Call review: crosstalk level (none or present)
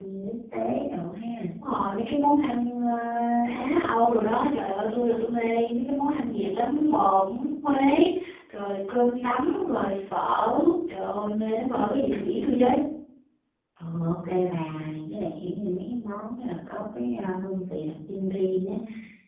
none